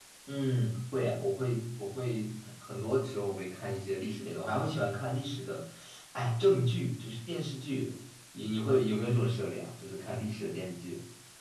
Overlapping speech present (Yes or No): No